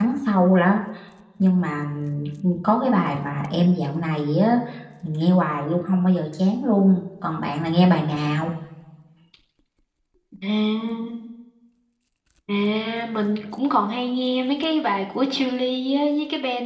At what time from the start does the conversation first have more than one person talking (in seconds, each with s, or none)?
none